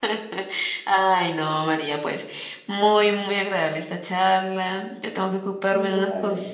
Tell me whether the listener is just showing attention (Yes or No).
Yes